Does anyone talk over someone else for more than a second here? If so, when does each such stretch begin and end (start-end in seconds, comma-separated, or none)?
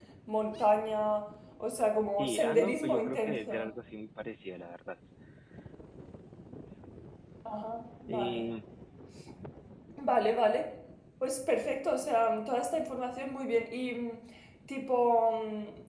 2.2-3.7